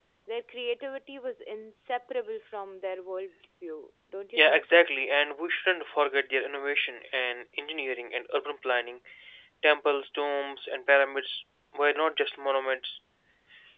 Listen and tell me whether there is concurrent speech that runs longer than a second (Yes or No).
No